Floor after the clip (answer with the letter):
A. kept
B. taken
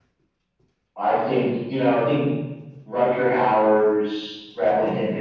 A